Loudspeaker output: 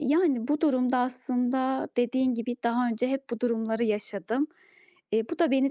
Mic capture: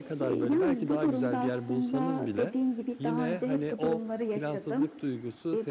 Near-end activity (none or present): present